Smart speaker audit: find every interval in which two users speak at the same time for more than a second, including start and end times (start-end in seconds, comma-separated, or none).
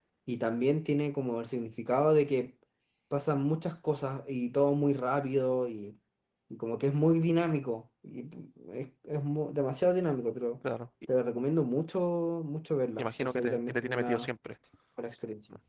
13.0-14.3